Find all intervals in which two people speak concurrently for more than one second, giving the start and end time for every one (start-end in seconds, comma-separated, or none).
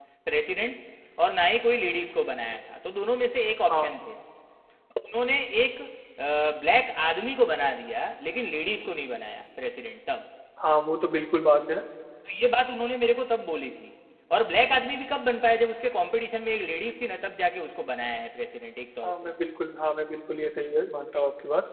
none